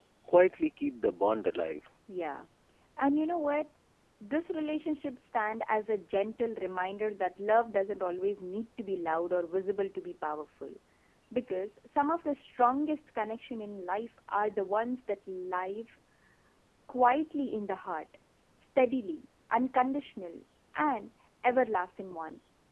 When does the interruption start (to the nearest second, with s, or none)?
none